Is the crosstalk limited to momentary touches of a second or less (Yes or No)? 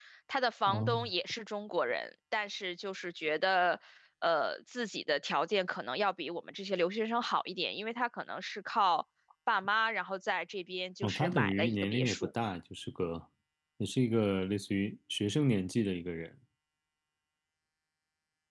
No